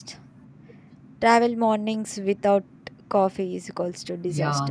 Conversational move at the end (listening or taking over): taking over